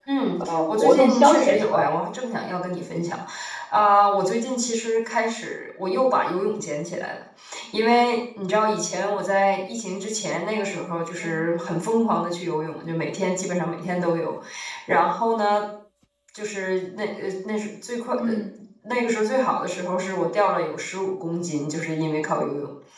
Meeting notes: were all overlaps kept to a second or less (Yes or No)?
No